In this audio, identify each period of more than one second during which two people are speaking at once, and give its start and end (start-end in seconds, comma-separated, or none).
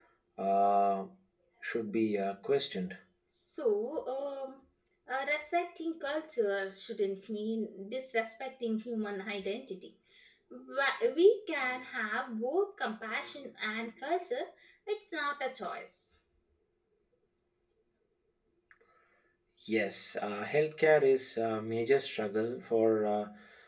none